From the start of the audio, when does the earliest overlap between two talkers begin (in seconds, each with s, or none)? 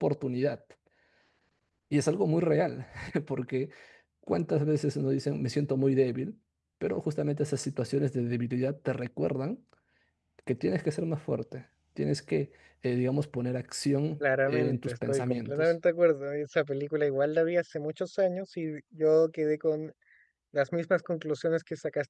14.5 s